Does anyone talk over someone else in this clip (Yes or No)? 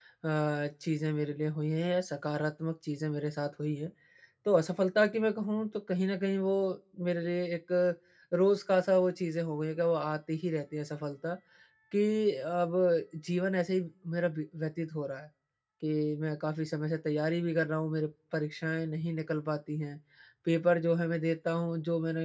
No